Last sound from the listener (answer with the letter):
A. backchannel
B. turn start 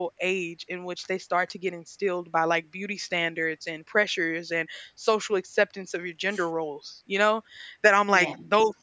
A